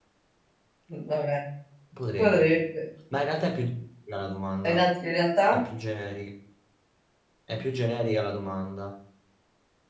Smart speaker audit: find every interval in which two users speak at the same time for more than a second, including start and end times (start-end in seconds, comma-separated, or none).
none